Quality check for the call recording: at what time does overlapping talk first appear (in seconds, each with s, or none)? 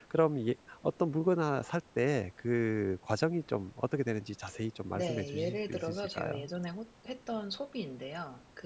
4.9 s